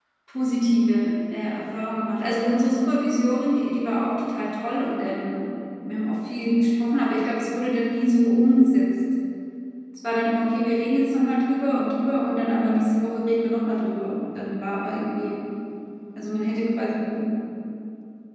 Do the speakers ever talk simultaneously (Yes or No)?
No